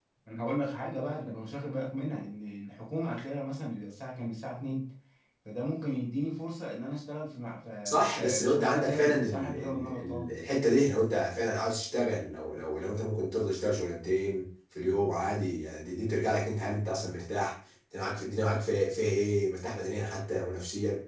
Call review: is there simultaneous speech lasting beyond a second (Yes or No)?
Yes